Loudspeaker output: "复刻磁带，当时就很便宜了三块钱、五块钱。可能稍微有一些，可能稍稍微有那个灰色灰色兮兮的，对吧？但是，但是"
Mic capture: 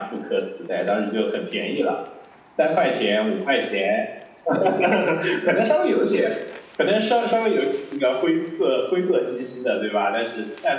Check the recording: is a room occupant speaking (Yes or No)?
No